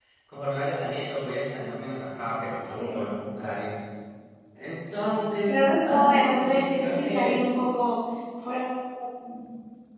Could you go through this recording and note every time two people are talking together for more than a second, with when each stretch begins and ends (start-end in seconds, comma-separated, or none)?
5.5-7.4